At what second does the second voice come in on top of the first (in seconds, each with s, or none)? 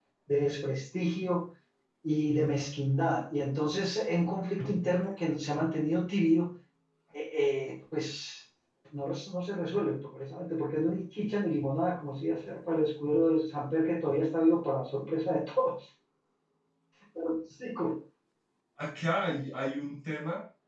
none